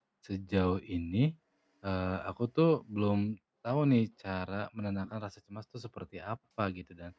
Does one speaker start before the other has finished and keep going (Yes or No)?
No